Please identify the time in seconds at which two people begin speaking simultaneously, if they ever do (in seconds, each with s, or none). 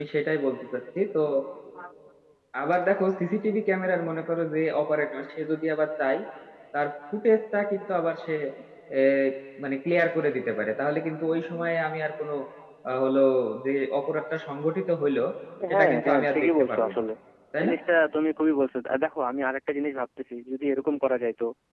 15.7 s